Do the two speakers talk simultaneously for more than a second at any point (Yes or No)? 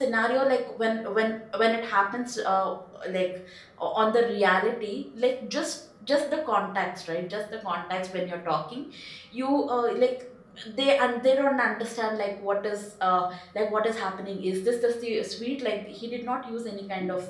No